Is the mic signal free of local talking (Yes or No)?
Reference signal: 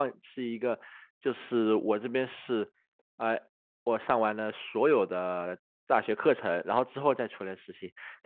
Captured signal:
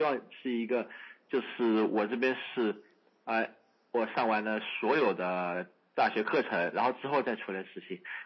Yes